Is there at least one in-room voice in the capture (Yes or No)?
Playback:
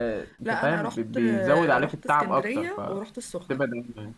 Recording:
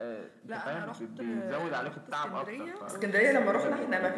Yes